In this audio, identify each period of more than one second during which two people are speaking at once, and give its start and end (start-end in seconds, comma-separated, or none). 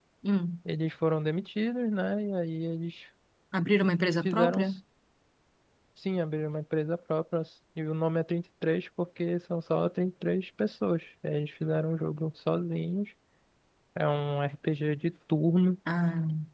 none